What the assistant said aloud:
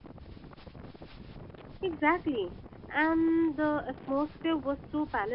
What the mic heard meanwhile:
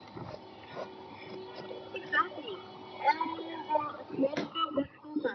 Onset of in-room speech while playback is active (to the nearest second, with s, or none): none